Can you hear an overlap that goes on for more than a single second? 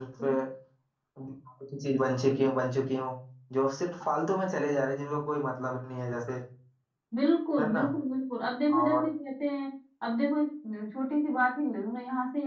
No

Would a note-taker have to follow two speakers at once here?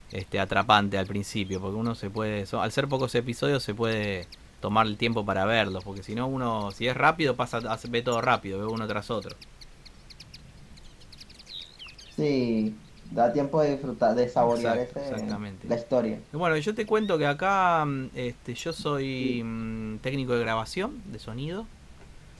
Yes, from 14.4 s

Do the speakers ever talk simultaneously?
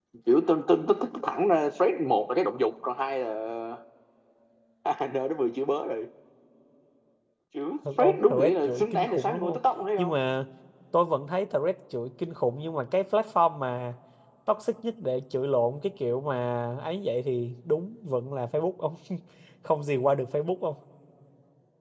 Yes, from 8.0 s

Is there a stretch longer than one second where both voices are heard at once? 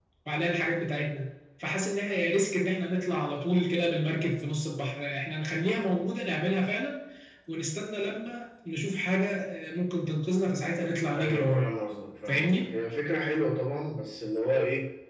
No

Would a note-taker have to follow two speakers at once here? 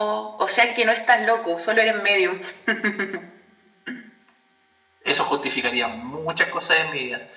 No

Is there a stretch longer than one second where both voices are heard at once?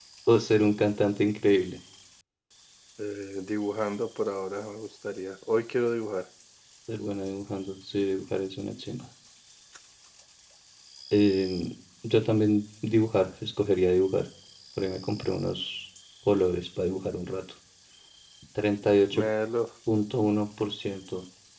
No

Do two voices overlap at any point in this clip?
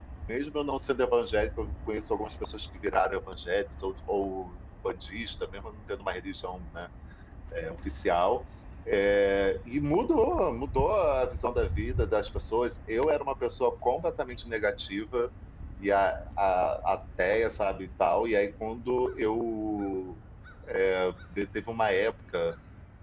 No

